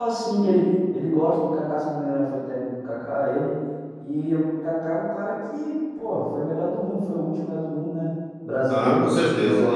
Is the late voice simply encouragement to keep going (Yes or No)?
No